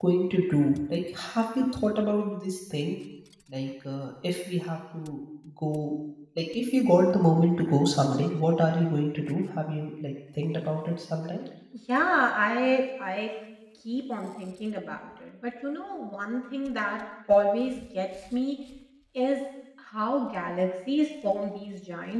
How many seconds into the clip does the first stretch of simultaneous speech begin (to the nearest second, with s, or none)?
none